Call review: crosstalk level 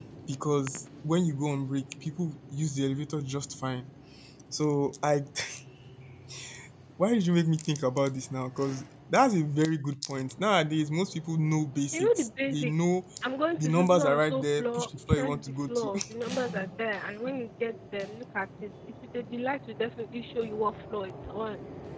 present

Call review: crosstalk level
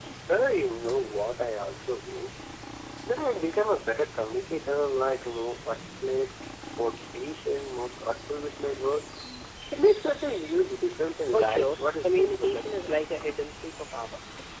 present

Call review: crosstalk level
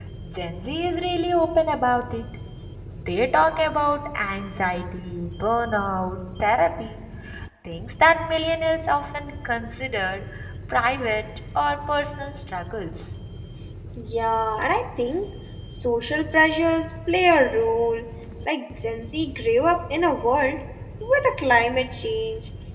none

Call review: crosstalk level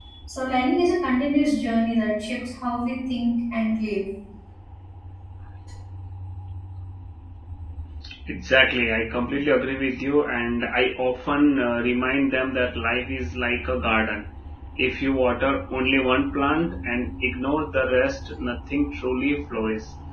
none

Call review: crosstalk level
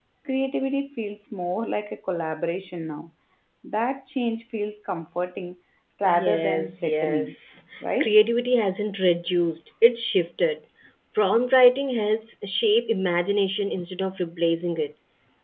present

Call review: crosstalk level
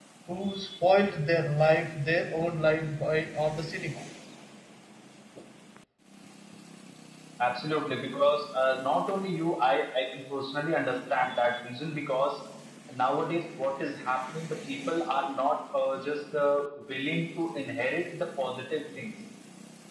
none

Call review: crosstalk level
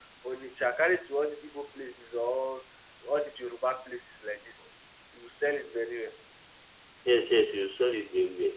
none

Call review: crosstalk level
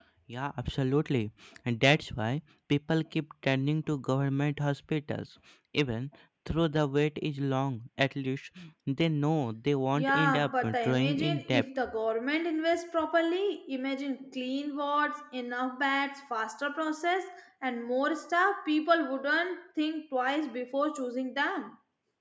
present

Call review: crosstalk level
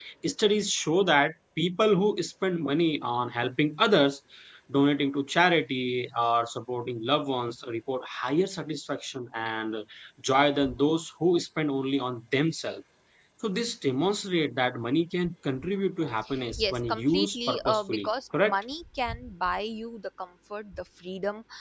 present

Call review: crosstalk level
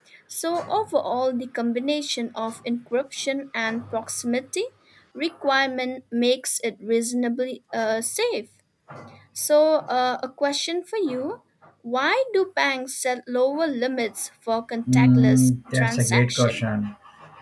present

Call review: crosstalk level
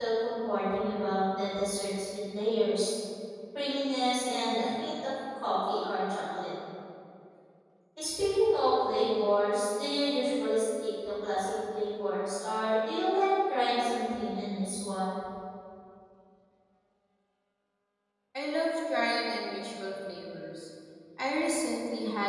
none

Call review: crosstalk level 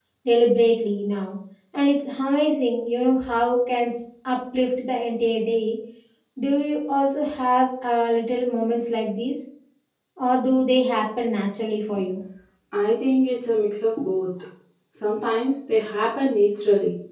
none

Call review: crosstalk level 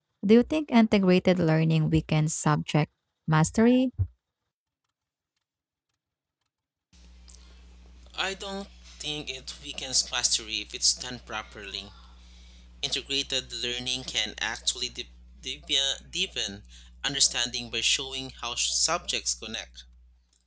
none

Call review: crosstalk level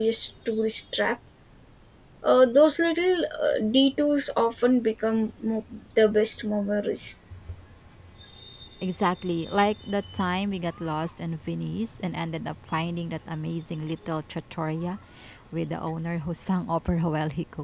none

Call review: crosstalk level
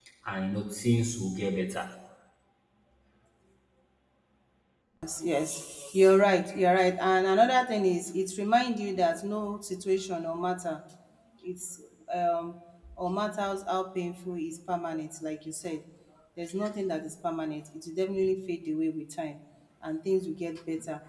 none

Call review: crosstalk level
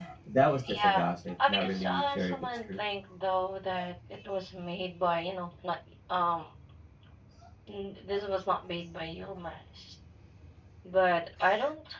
present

